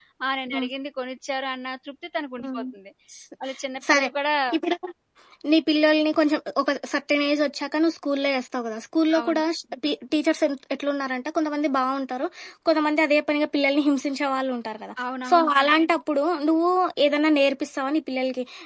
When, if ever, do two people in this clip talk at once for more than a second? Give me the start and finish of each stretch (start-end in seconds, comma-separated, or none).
none